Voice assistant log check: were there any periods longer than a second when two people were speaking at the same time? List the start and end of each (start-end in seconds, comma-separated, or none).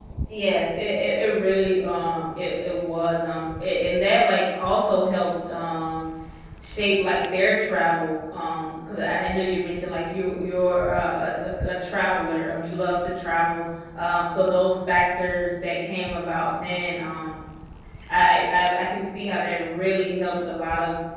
none